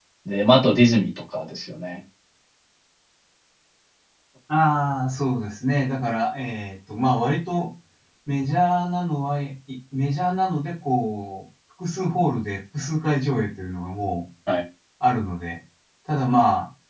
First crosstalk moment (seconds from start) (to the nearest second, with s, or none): none